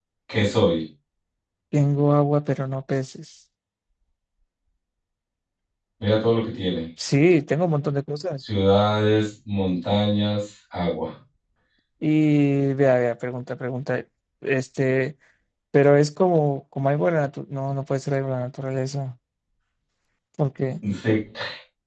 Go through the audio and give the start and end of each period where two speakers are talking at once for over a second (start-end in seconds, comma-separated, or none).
none